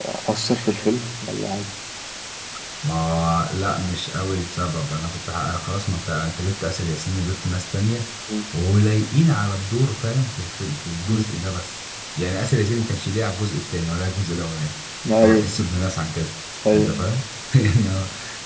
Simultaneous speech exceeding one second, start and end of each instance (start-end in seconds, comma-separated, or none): none